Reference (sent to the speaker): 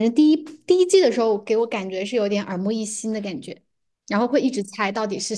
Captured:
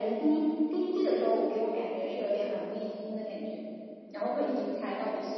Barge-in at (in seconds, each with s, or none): none